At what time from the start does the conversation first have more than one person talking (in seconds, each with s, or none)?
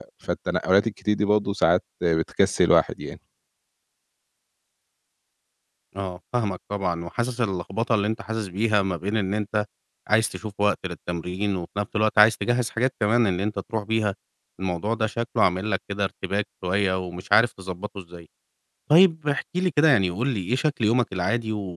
none